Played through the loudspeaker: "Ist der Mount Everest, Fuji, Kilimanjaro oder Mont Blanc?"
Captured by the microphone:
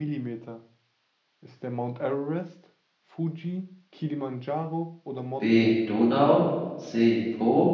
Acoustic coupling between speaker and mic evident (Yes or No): Yes